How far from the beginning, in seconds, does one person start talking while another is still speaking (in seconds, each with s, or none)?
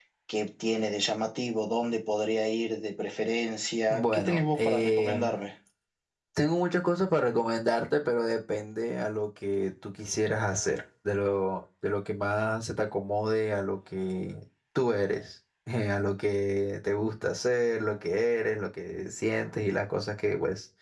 3.9 s